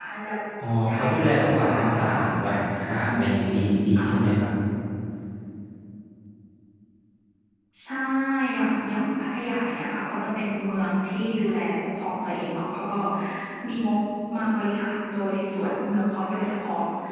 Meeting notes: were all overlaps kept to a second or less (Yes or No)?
No